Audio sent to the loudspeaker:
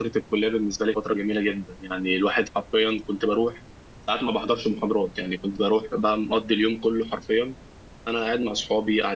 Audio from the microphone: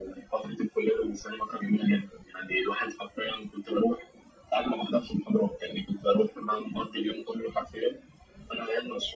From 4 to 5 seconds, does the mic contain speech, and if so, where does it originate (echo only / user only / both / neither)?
echo only